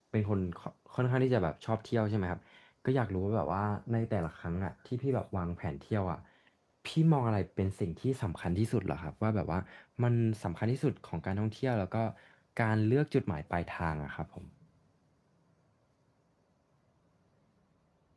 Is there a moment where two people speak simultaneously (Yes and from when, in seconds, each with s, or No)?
No